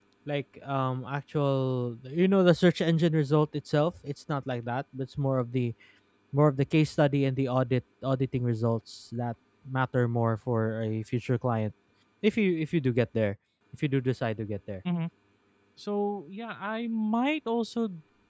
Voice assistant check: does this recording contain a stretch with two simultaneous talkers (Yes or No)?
No